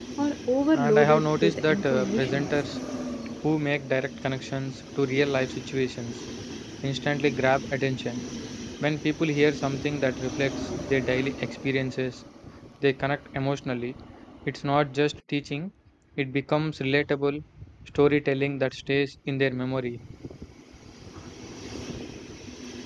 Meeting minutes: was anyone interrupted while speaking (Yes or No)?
Yes